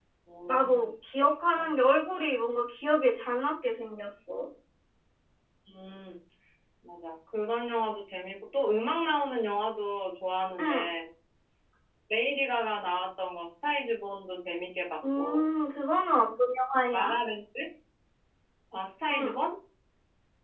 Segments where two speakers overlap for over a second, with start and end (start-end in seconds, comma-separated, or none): none